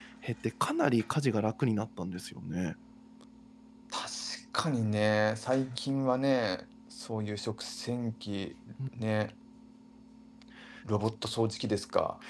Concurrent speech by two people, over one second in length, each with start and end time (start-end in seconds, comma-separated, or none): none